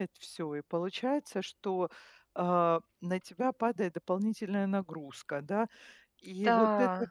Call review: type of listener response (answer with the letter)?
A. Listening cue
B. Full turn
A